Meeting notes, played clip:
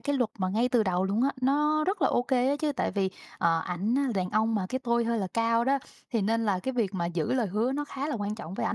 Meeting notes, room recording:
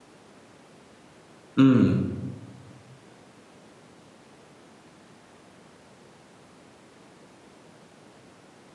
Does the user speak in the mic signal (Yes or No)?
Yes